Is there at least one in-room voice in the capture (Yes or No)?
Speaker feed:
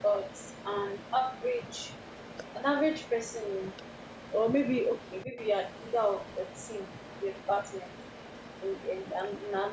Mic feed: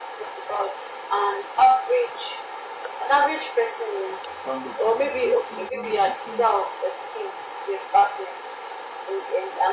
Yes